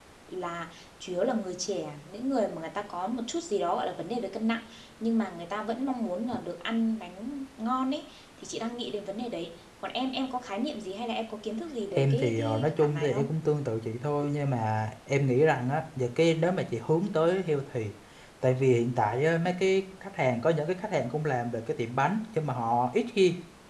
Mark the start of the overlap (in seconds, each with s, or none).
11.9 s